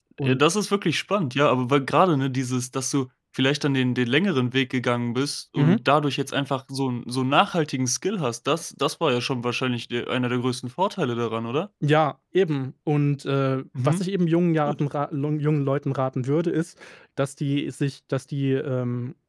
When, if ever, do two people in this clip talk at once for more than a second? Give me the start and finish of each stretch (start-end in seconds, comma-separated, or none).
none